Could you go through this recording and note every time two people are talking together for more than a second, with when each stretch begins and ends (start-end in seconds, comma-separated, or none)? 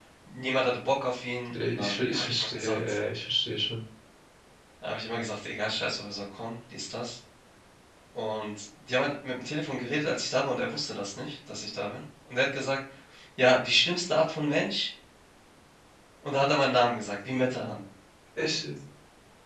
1.5-3.0